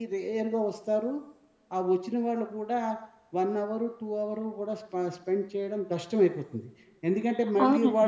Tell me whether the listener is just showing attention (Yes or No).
No